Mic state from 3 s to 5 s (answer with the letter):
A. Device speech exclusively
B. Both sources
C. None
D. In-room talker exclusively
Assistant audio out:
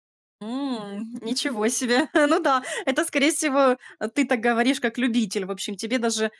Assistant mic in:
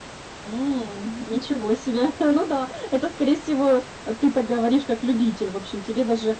A